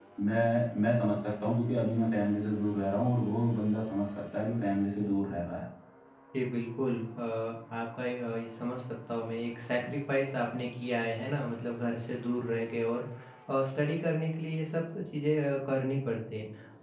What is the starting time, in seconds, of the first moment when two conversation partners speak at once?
none

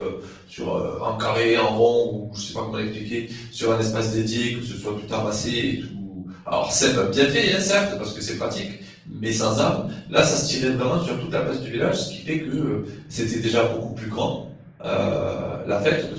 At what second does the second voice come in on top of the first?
none

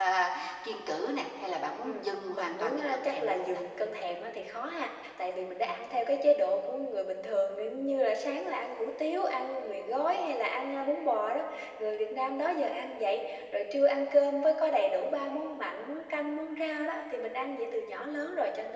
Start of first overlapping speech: 1.8 s

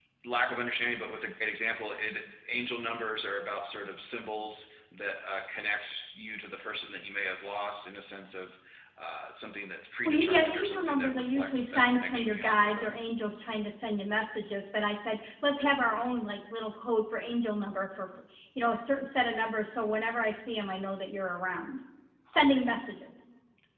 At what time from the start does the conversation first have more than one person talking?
10.0 s

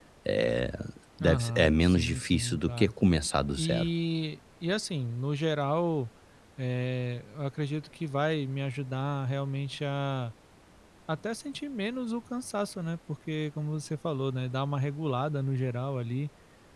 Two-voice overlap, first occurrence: 1.2 s

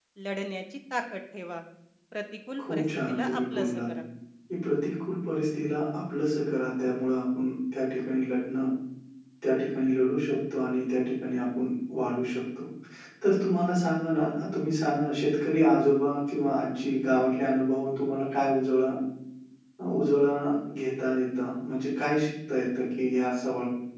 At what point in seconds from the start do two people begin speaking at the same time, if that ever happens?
2.6 s

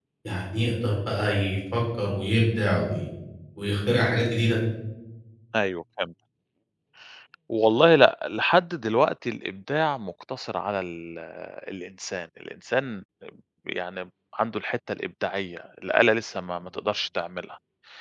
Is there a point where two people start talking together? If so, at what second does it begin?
none

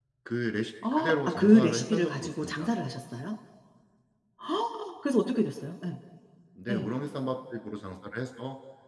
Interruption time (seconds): 0.9 s

